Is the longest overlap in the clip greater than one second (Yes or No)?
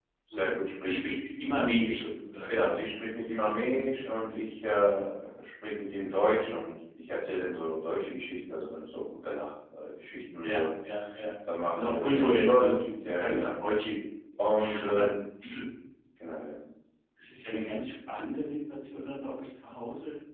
Yes